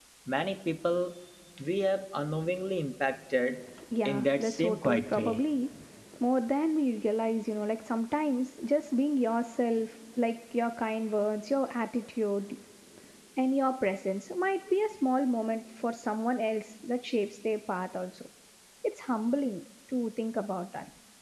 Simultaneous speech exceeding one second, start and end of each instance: 4.0-5.4

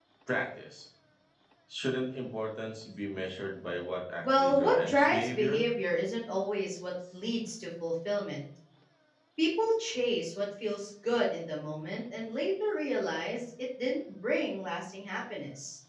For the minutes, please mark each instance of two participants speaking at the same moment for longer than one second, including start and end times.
4.2-5.6

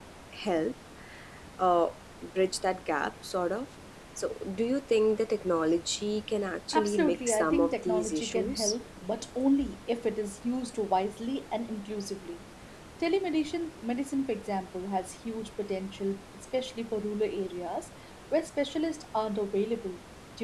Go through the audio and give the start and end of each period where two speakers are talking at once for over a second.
6.7-8.7

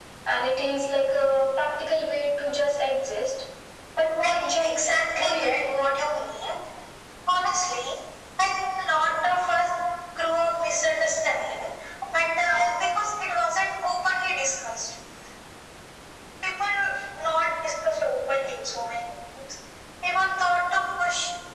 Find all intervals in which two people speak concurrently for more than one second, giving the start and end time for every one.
4.2-5.7

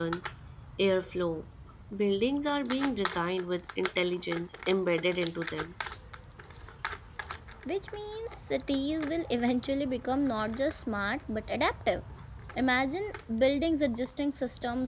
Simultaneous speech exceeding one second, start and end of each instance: none

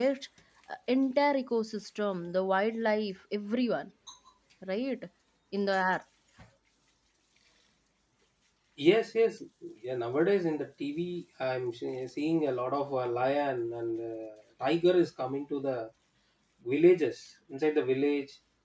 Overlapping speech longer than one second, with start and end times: none

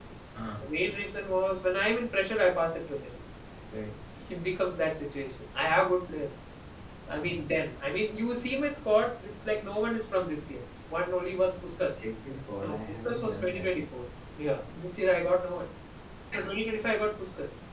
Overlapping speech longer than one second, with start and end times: 12.6-13.8

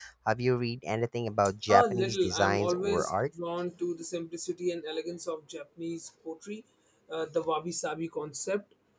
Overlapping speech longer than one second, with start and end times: 1.7-3.1

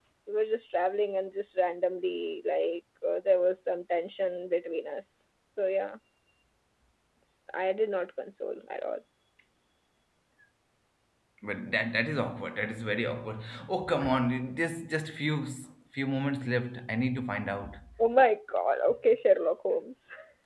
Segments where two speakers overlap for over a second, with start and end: none

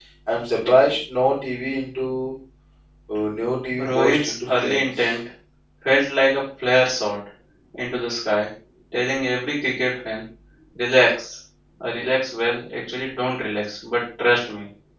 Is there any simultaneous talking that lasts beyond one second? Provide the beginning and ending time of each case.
3.8-5.1

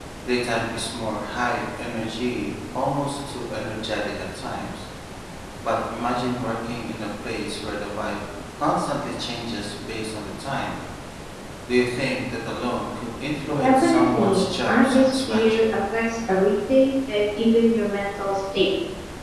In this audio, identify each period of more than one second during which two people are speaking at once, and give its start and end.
13.6-15.6

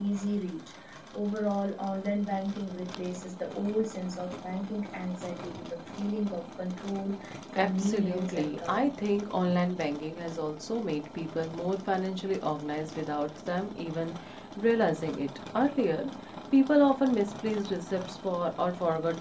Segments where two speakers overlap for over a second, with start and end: 7.6-8.9

